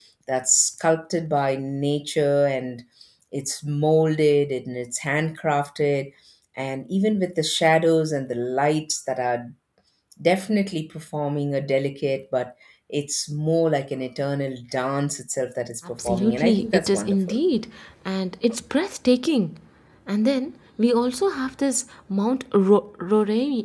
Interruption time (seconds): 16 s

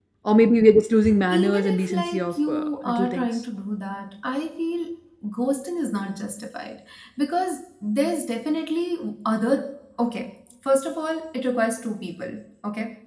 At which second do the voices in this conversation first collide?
1 s

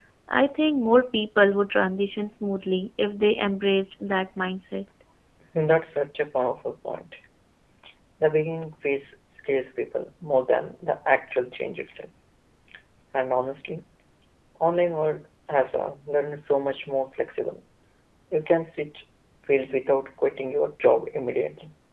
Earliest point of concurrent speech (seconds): none

